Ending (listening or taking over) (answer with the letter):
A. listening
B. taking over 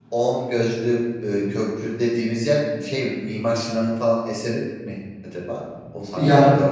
B